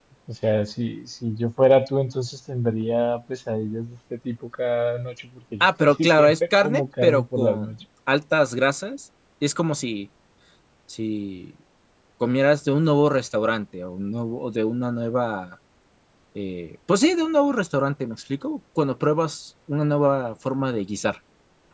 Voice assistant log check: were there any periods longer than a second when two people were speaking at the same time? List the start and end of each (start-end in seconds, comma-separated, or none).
5.6-7.7